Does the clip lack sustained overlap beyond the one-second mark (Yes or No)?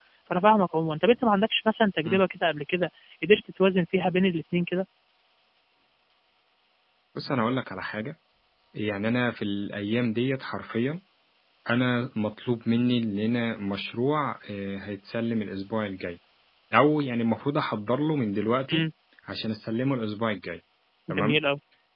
Yes